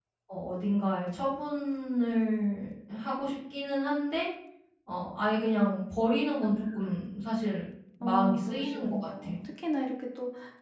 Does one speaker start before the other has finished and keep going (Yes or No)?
Yes